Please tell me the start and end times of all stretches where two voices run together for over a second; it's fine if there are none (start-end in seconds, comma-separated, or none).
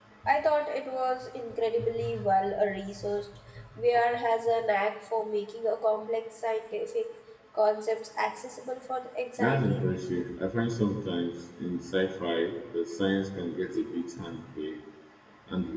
none